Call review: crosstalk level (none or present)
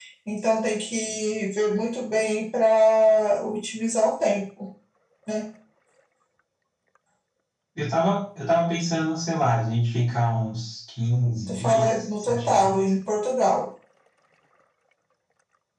present